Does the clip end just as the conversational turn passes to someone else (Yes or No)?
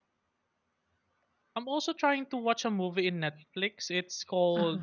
No